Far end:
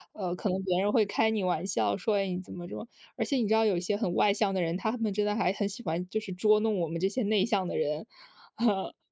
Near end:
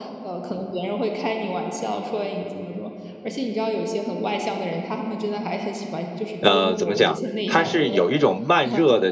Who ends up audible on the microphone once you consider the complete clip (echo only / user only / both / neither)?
both